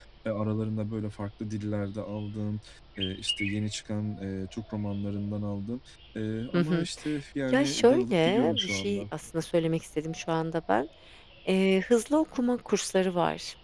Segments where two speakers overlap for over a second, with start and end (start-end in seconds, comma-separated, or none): 7.5-9.0